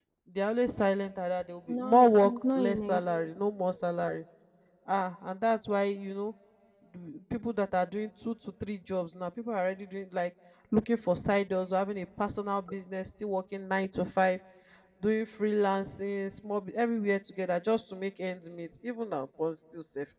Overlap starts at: 2 s

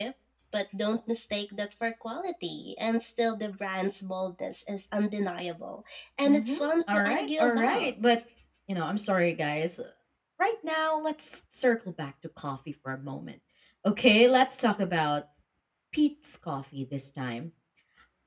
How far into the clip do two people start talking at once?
6 s

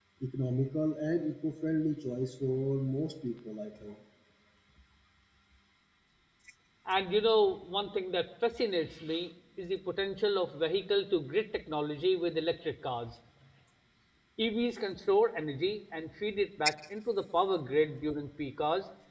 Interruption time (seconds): none

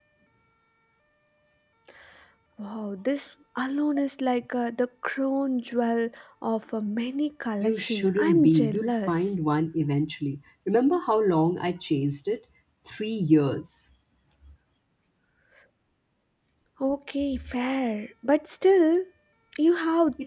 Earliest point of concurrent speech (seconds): 8 s

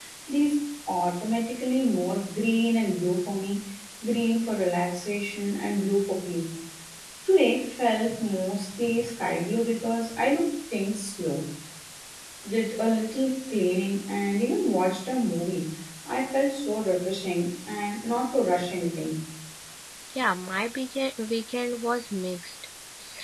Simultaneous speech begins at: none

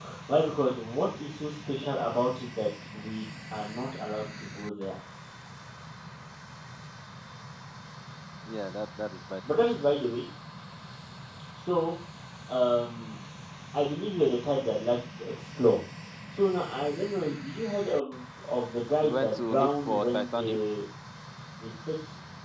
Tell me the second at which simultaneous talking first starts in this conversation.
19 s

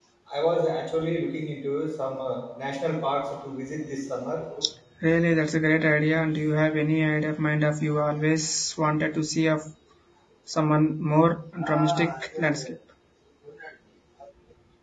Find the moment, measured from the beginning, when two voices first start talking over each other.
none

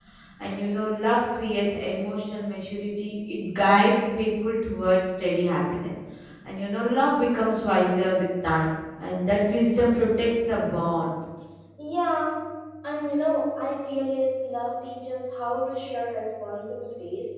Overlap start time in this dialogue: none

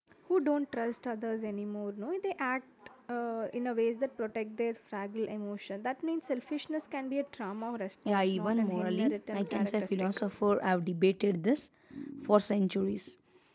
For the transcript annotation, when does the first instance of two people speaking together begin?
8 s

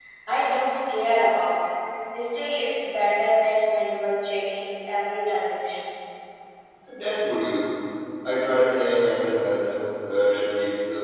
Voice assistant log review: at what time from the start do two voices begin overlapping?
none

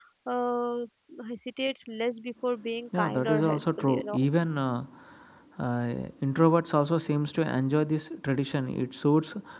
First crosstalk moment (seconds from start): 3 s

